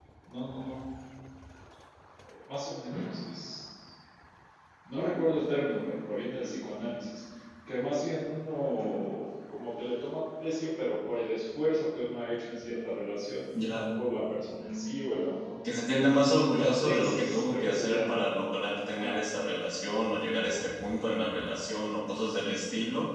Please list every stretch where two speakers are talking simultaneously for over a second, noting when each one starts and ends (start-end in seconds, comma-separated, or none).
16.6-18.2